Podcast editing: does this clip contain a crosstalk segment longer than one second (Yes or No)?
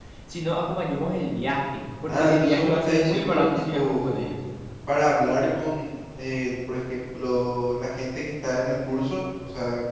Yes